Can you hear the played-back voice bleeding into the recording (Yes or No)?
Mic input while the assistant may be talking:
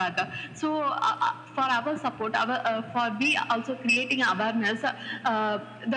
Yes